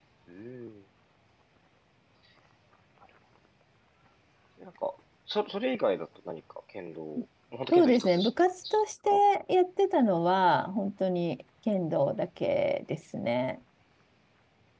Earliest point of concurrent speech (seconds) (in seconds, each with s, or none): 7.7 s